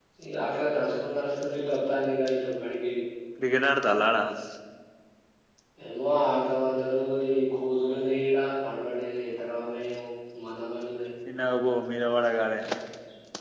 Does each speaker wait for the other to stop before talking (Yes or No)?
Yes